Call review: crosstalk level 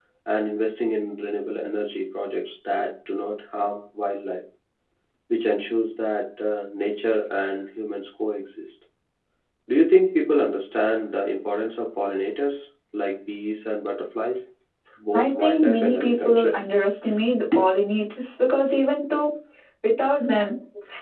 present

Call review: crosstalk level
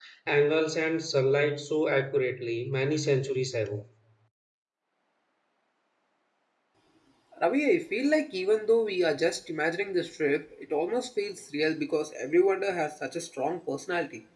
none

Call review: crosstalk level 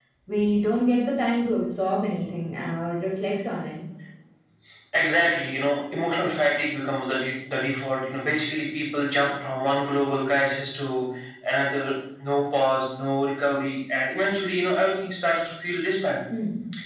none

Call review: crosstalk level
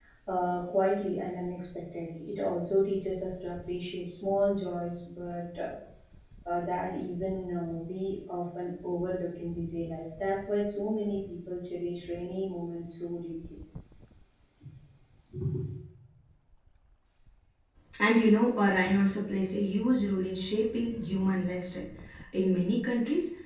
none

